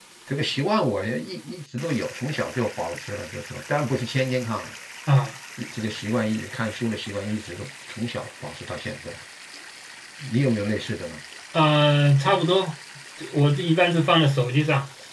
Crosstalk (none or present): none